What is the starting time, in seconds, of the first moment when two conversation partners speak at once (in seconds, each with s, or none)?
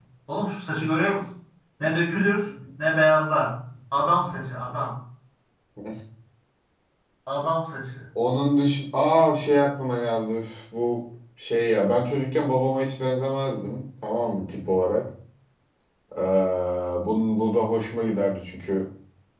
none